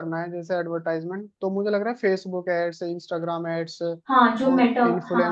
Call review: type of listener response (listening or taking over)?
taking over